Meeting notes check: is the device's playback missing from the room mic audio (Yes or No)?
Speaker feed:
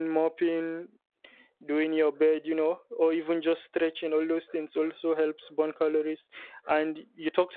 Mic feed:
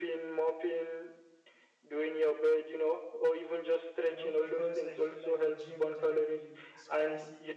No